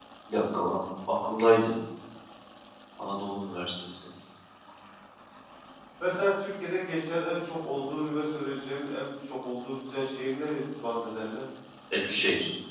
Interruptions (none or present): none